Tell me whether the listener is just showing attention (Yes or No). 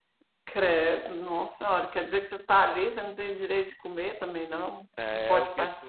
No